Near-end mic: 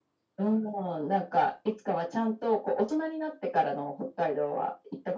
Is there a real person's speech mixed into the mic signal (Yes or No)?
No